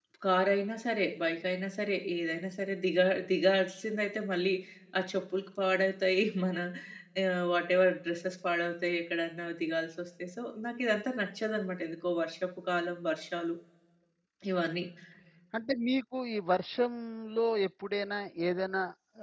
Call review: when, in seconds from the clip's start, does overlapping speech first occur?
none

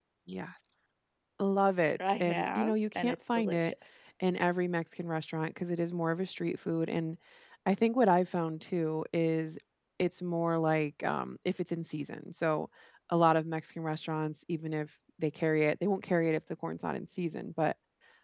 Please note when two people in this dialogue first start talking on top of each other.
2.1 s

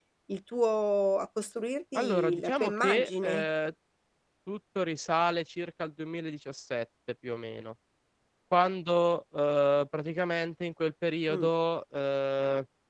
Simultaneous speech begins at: 1.9 s

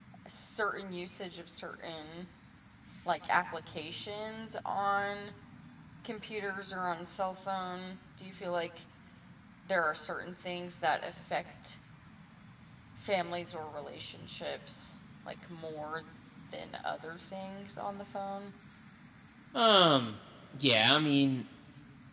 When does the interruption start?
none

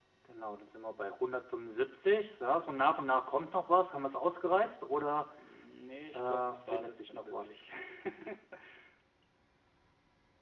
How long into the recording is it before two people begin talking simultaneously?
6.1 s

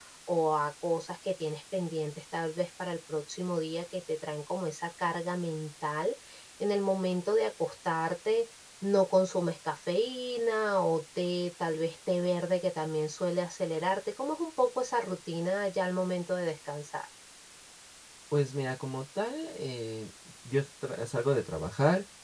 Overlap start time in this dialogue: none

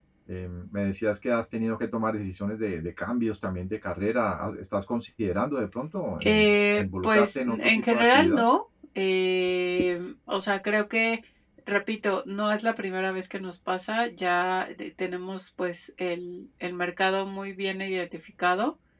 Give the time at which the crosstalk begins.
6.2 s

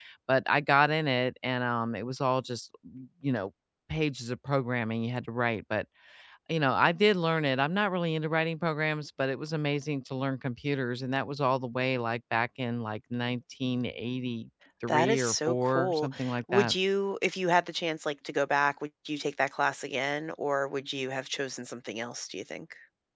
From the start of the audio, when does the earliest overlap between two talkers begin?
14.9 s

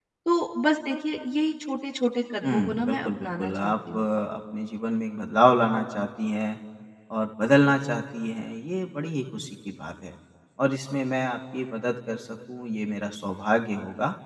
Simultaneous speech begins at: 2.4 s

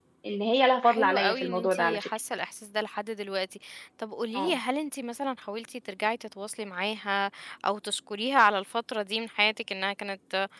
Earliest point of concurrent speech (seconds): 0.8 s

